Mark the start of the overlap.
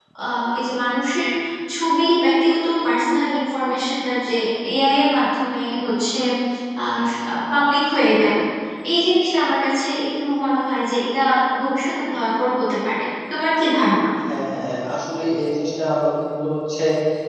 none

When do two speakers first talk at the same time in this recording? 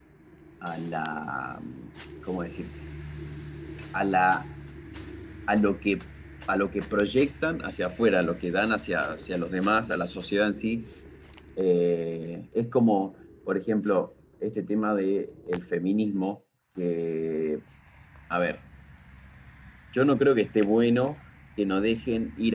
none

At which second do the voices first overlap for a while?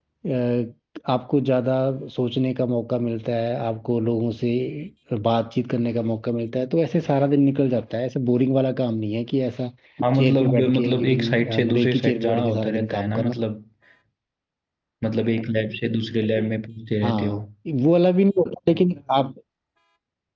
10.2 s

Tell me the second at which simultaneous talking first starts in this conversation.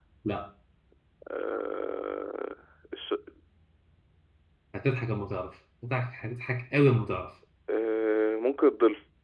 none

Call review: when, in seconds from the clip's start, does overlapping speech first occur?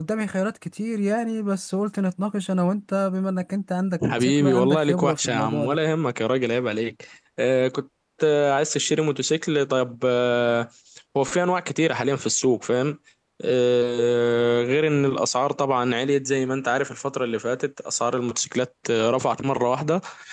4.0 s

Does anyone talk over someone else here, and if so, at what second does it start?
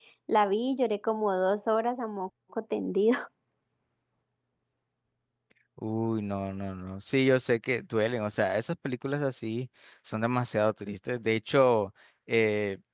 none

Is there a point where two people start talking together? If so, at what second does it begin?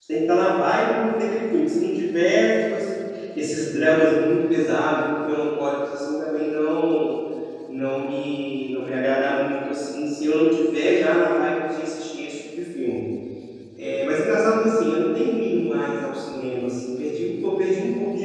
none

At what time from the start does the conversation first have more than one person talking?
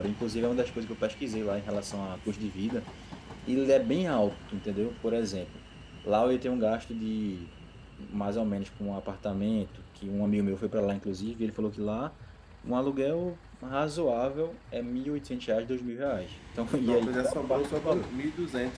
16.8 s

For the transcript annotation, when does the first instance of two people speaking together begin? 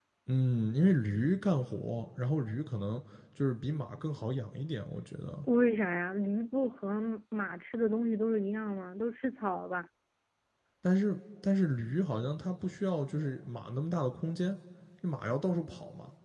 none

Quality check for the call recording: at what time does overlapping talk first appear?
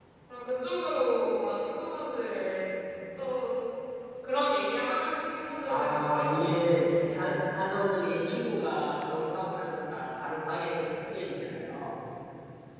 5.7 s

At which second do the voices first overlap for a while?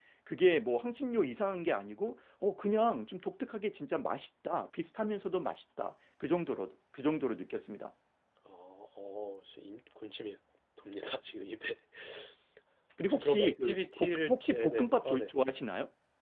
13.1 s

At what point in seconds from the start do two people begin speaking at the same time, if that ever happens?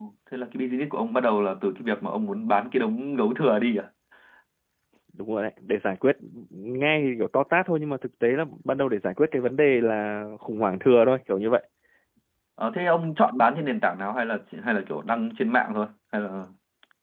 none

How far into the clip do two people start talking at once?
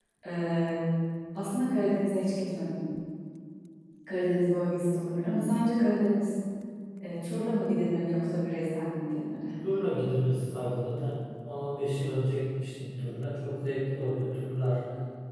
none

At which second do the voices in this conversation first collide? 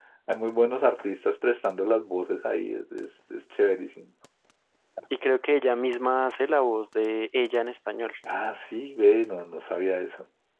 none

